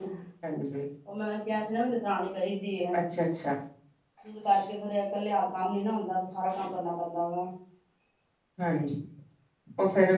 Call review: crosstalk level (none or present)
none